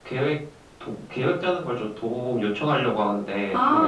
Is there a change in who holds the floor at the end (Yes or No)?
Yes